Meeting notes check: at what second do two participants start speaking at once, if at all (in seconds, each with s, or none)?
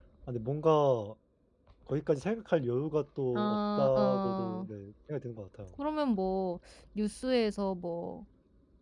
3.3 s